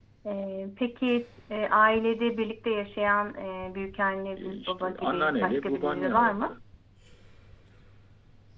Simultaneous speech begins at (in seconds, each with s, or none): 4.4 s